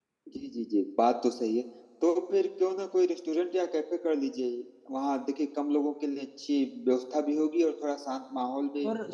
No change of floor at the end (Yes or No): No